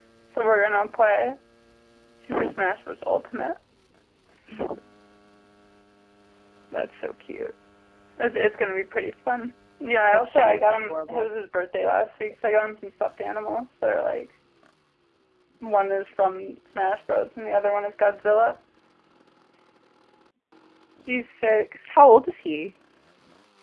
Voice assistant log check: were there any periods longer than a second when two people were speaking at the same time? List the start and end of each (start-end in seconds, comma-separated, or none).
10.1-11.4